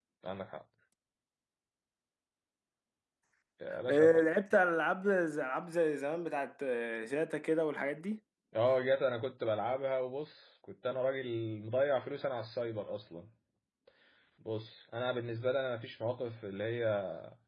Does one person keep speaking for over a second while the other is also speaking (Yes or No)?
No